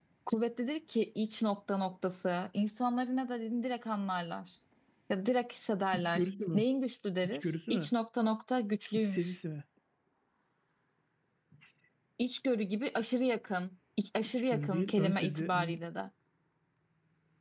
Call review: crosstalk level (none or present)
present